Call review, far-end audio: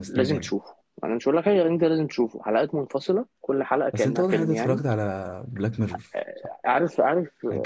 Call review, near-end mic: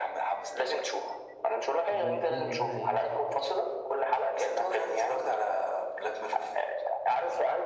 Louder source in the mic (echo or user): echo